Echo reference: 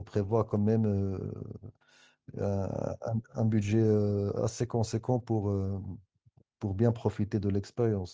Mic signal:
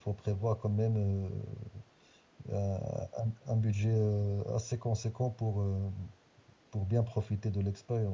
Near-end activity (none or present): none